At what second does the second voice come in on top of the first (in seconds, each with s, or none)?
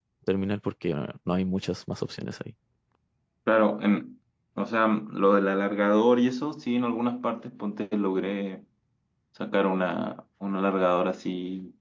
none